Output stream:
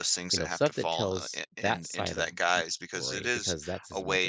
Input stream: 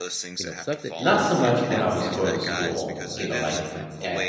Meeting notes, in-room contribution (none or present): present